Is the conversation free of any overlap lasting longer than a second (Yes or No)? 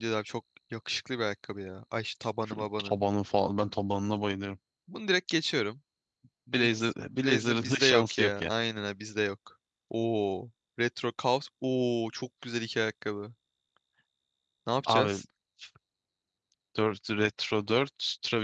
No